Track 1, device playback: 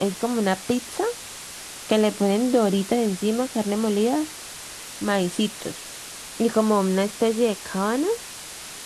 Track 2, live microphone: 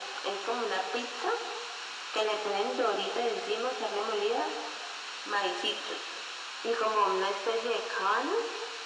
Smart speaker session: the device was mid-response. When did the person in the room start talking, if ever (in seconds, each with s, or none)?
none